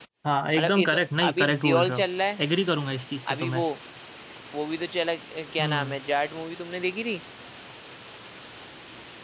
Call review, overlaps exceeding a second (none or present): present